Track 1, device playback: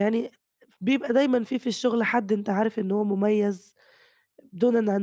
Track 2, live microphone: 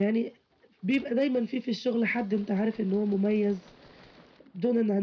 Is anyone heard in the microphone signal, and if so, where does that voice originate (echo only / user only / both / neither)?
echo only